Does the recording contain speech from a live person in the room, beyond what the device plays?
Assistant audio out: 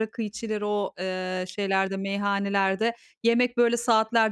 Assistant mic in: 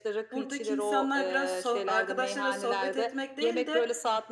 Yes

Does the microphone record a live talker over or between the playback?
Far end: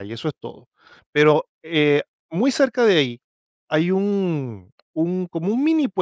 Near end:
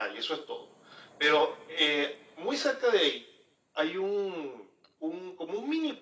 No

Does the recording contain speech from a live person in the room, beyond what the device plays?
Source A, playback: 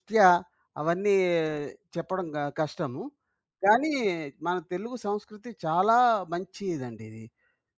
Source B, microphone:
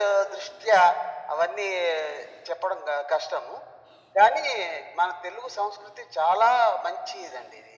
No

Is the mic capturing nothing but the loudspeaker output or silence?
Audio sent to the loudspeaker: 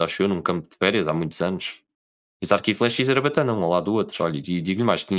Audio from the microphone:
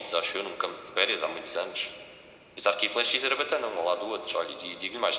Yes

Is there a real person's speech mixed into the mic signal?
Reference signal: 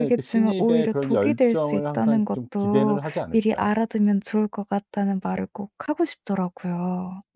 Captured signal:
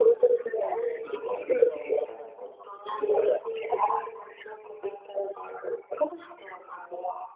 No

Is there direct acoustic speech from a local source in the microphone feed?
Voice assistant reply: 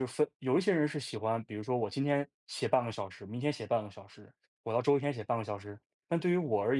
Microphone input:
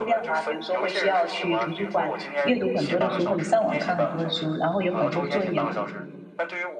Yes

